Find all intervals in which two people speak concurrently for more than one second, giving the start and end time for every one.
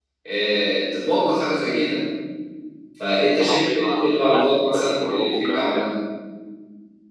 3.4-5.9

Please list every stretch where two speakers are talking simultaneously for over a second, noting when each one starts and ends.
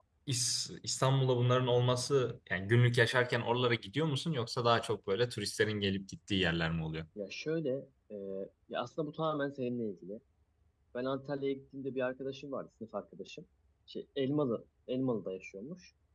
none

